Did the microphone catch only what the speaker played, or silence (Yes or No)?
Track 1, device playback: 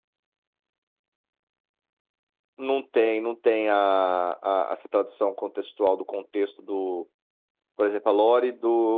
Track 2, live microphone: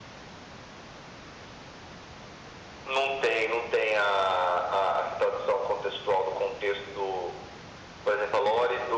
Yes